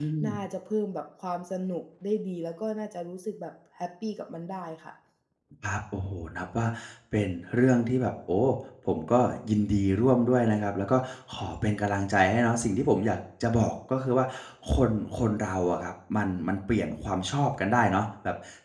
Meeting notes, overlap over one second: none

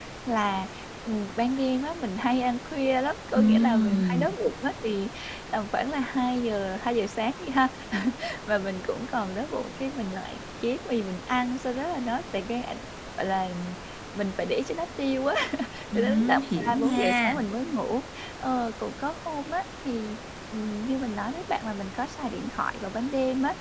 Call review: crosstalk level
present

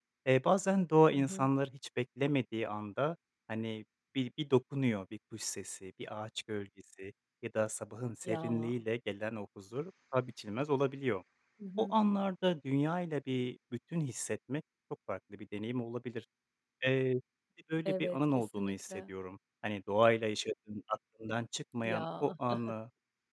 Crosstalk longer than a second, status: present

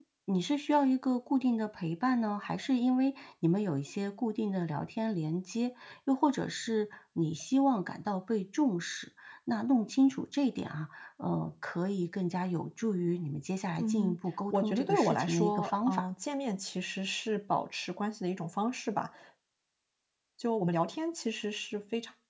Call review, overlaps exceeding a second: present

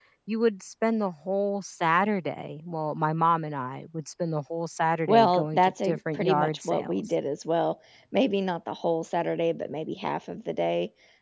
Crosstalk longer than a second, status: present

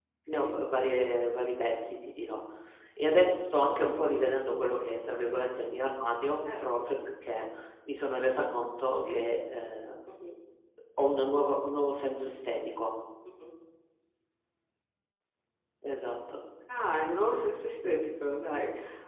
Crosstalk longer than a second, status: none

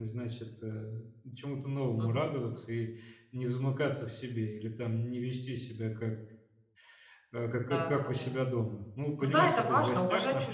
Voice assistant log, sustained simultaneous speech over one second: present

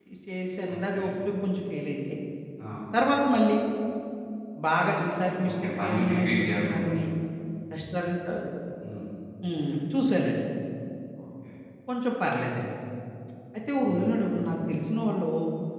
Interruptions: present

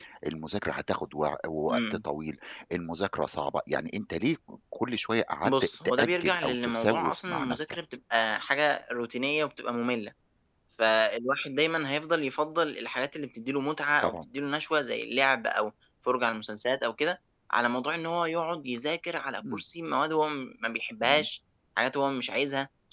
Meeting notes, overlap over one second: present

